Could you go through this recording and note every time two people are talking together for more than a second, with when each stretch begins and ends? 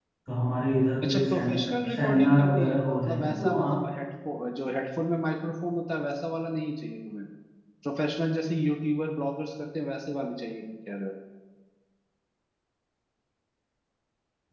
1.1-3.7

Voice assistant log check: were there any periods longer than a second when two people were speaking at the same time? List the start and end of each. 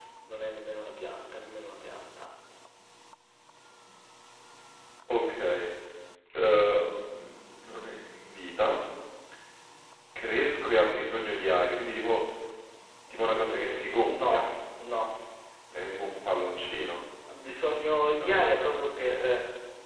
13.3-14.5

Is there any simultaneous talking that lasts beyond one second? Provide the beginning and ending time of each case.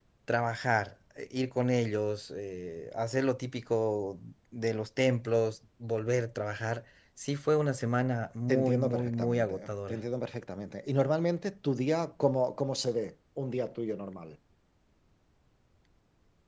8.5-10.0

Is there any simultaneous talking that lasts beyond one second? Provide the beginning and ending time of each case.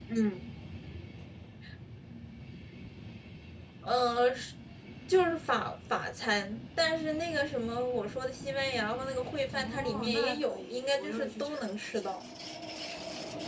9.5-12.1

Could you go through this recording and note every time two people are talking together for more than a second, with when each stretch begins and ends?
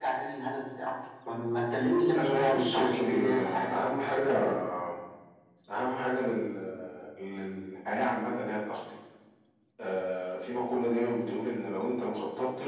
2.1-4.3

